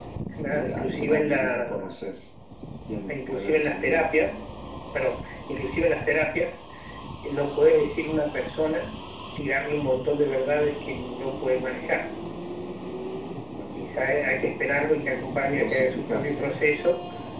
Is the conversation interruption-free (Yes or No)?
No